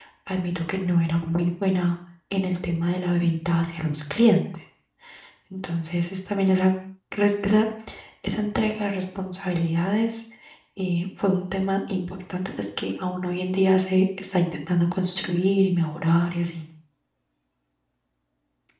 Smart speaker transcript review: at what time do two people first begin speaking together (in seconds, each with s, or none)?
none